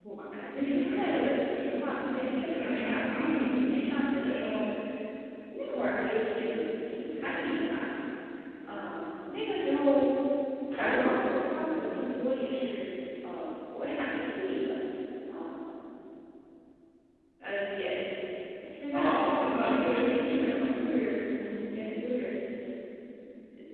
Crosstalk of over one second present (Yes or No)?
Yes